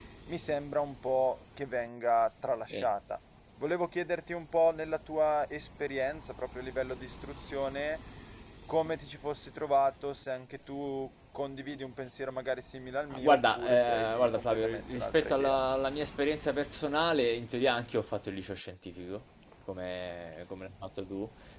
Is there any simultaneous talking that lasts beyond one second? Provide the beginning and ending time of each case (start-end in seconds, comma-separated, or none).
13.1-15.6